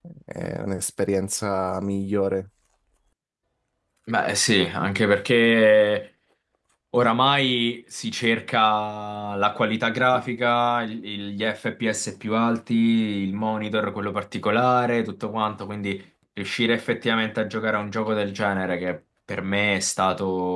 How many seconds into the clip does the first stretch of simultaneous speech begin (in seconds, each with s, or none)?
none